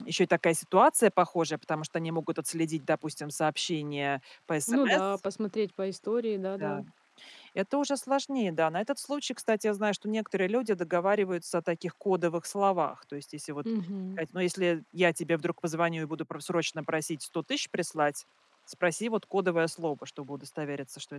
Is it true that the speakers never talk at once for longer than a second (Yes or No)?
Yes